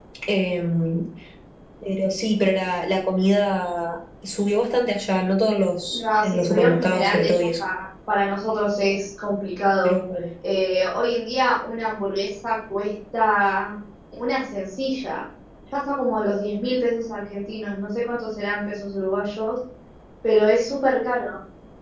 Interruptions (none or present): present